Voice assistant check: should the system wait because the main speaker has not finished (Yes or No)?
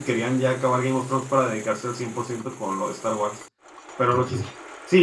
Yes